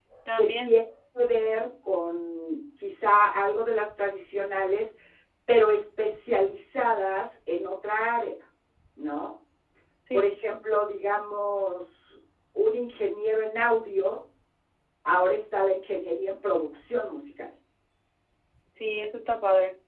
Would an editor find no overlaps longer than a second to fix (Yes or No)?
Yes